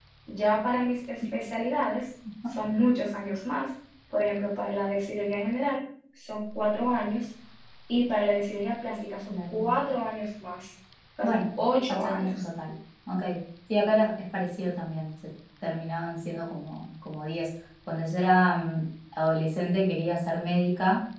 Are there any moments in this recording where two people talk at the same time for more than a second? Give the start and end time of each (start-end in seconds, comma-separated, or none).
11.2-12.4